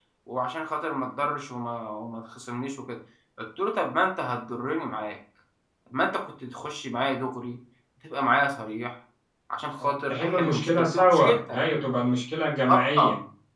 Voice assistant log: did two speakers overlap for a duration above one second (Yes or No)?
Yes